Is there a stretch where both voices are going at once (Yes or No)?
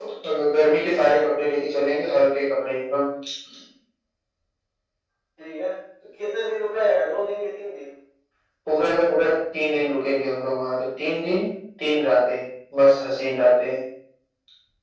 No